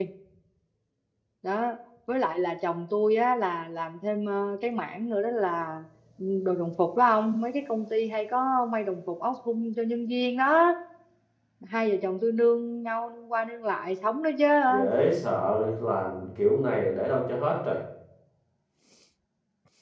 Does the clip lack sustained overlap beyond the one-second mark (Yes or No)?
Yes